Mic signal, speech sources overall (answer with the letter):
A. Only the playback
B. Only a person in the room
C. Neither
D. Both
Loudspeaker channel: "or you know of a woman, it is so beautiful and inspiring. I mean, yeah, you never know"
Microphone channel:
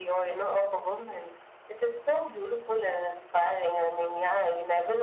A